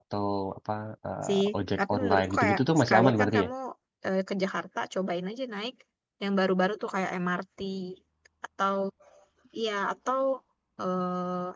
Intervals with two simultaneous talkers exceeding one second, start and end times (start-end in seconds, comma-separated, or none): 1.8-3.5